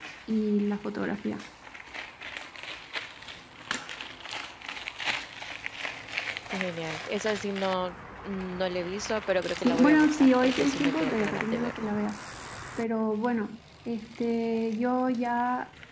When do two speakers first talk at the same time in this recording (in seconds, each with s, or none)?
9.6 s